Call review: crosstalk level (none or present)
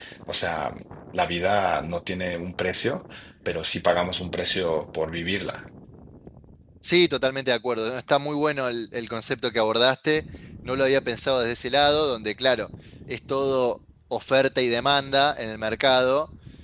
none